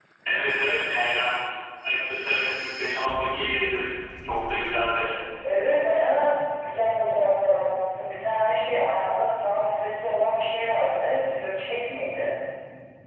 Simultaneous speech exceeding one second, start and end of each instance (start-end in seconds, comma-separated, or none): none